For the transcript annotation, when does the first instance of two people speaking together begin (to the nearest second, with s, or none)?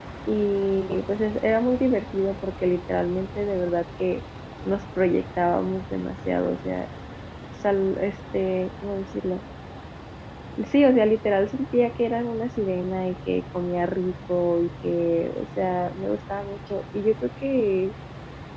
none